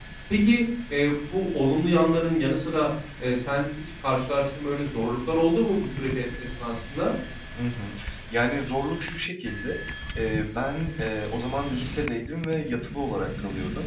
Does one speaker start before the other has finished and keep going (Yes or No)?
No